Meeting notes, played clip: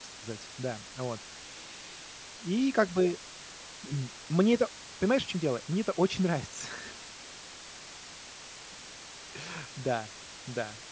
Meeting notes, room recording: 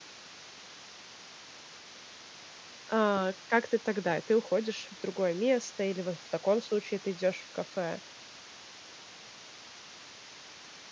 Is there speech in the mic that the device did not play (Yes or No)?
Yes